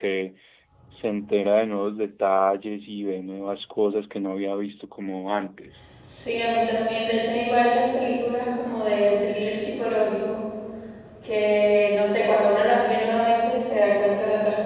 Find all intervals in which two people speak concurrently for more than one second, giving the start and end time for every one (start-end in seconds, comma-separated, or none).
none